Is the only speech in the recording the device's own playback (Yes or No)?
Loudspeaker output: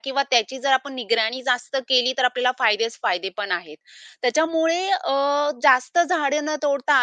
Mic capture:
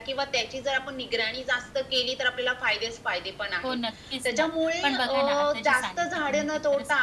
No